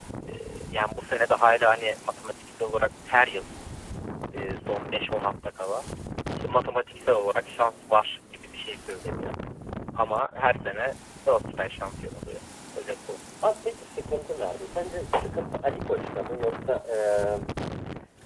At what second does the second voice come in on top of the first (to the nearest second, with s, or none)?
none